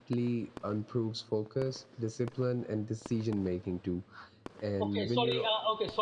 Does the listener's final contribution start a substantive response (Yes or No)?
Yes